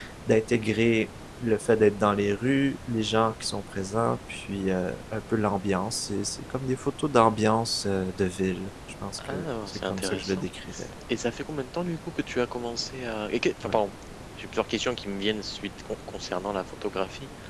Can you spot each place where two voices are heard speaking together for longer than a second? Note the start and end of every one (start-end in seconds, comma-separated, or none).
9.2-10.4